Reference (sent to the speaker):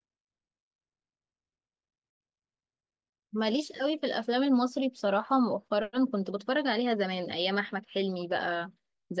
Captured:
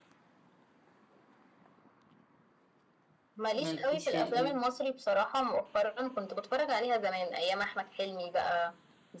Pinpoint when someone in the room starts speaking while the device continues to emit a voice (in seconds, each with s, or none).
3.5 s